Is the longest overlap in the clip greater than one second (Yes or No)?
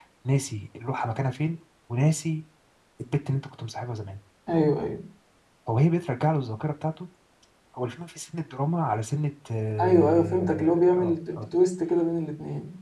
Yes